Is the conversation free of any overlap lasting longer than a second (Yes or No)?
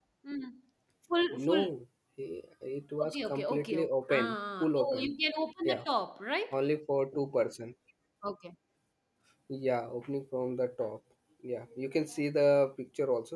No